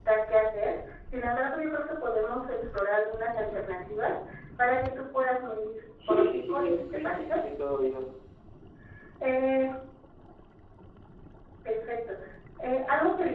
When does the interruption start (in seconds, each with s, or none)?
6.0 s